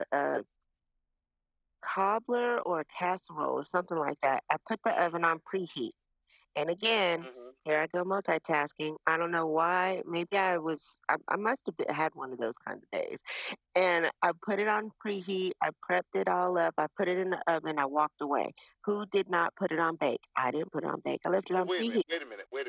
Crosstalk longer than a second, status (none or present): none